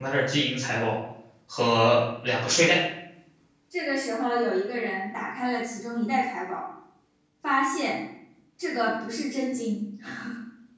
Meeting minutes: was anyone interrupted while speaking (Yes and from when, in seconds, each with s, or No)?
No